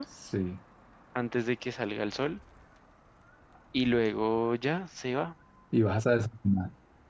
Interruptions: none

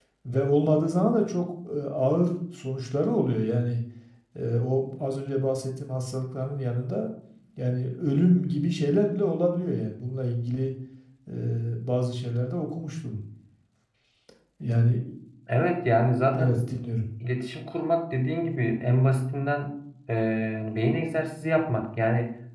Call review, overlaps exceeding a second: none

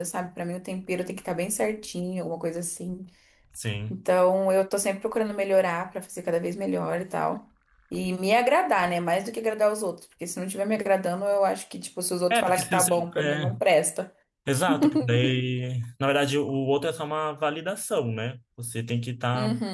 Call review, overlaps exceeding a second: present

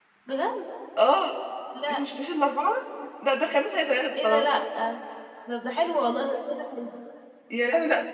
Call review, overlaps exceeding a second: none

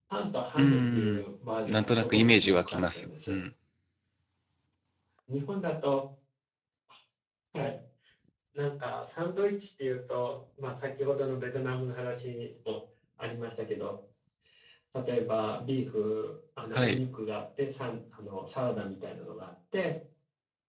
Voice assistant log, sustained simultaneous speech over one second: present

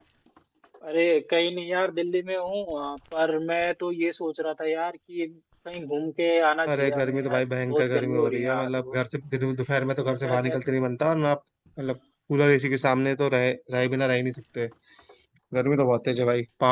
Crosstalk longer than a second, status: present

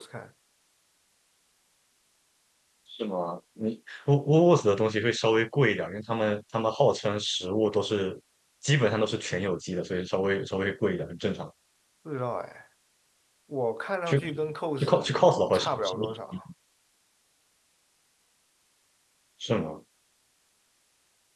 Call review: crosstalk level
present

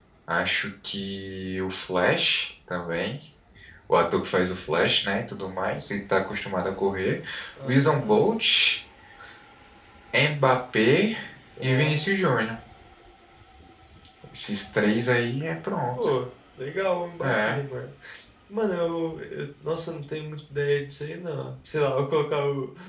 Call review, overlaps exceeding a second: none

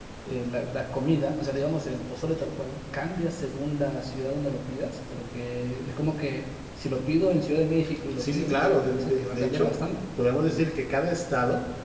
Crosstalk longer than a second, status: present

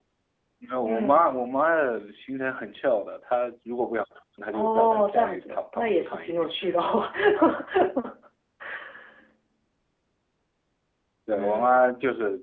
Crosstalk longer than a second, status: present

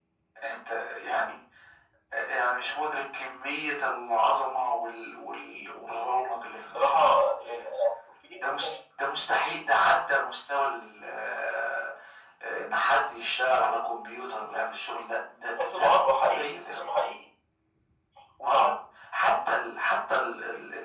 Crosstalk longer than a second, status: present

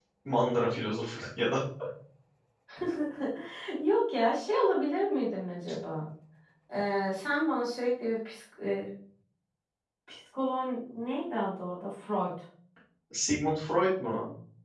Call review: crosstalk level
none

